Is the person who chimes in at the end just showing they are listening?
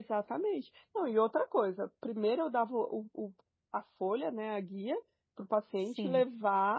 Yes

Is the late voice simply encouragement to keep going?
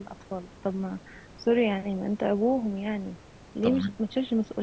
Yes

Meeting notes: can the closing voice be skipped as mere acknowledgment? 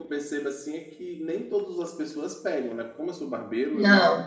Yes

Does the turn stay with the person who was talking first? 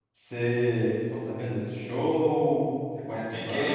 No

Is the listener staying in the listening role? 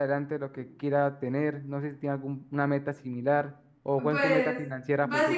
No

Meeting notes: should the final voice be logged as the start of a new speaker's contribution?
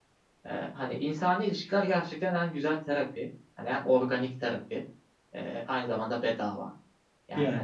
No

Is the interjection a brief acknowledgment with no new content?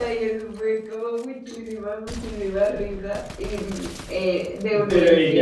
No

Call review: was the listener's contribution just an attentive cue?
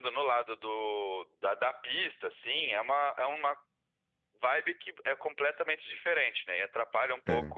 Yes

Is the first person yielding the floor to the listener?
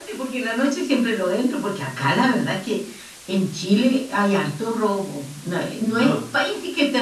No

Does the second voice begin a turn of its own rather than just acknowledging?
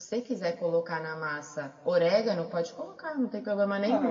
Yes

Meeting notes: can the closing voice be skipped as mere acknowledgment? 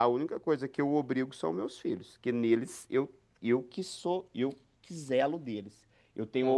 Yes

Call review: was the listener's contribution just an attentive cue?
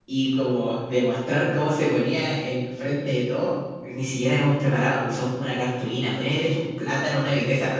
Yes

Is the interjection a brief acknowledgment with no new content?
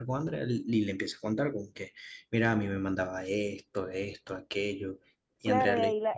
No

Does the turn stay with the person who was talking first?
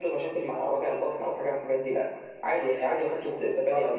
Yes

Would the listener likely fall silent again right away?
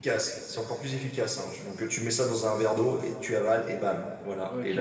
No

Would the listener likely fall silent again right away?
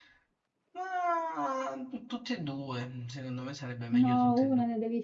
No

